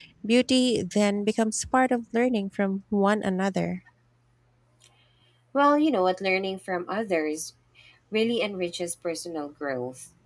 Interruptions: none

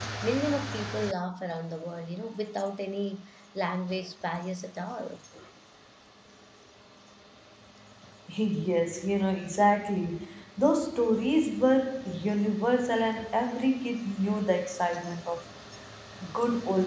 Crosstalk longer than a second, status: none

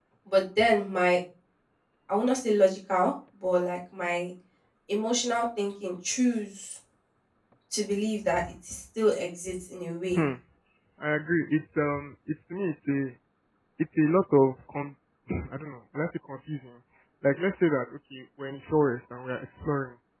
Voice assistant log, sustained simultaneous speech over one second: none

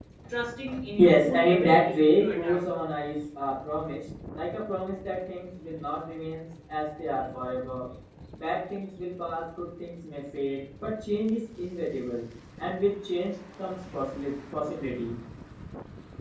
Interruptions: present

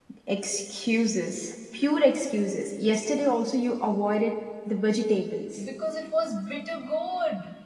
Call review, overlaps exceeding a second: none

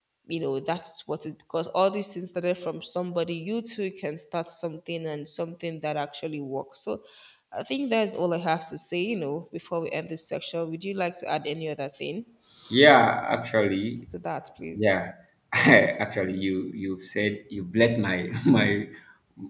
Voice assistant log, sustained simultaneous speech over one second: none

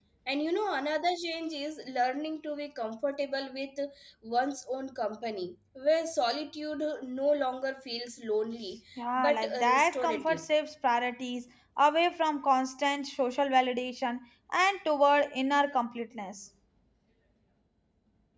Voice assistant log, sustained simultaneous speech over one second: present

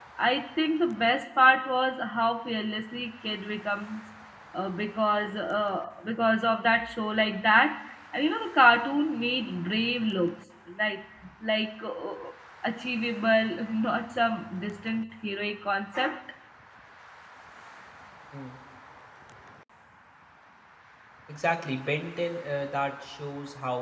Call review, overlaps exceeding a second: none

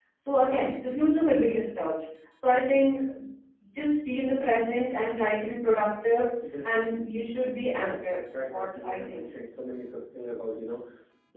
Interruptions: present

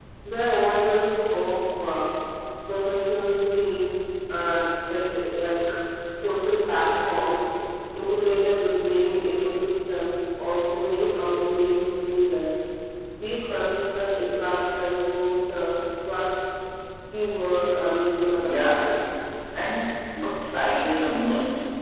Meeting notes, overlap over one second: none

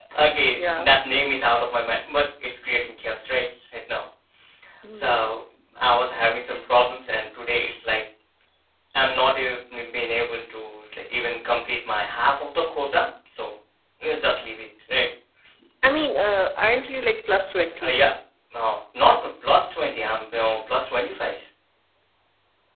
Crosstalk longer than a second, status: none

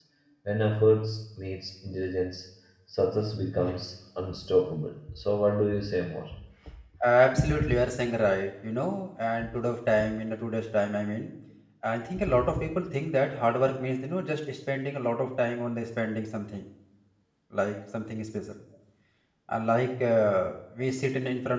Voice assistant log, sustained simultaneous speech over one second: none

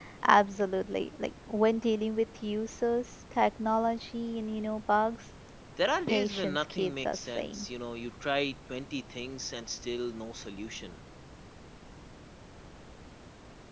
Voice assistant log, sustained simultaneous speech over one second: present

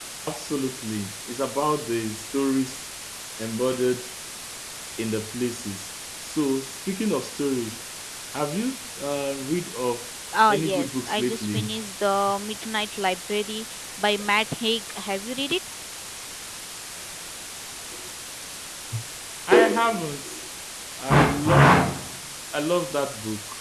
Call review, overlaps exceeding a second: present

